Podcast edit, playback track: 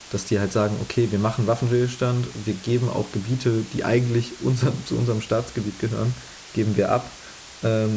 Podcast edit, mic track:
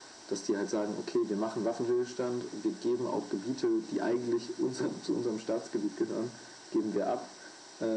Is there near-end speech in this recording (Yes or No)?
No